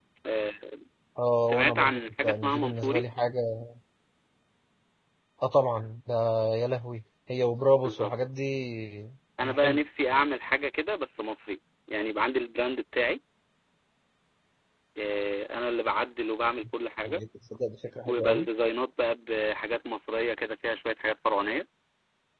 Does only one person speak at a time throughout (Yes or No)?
No